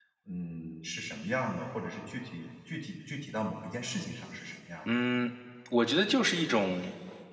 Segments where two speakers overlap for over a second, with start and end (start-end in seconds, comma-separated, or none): none